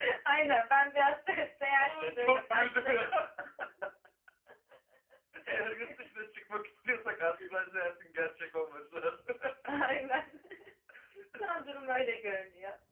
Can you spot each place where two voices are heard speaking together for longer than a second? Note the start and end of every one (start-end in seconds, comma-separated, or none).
1.8-3.1